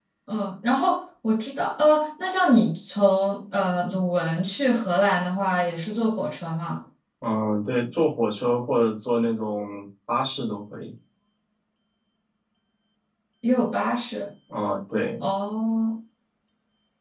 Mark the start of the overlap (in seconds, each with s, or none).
none